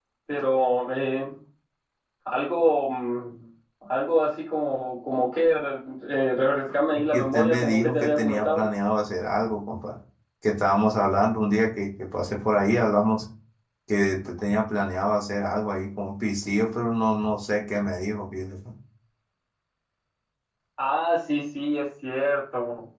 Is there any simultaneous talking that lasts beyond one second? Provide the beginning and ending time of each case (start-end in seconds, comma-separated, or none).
7.1-8.6